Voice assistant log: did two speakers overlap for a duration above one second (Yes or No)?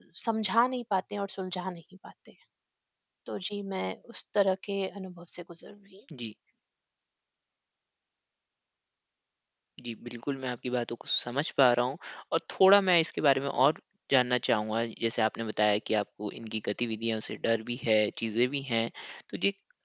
No